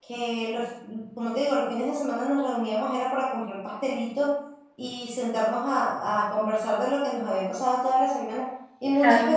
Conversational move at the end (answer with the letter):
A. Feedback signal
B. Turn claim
A